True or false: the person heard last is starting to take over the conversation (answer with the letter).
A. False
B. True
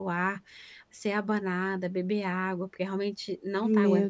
B